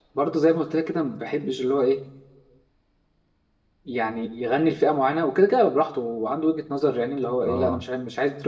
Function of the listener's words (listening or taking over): listening